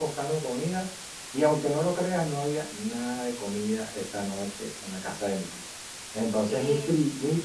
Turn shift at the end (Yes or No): No